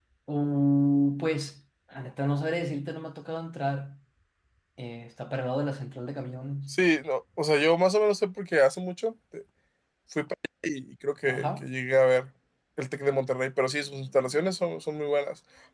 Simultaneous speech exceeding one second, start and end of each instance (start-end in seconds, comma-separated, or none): none